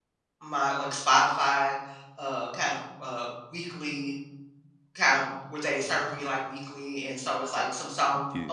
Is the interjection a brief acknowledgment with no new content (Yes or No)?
Yes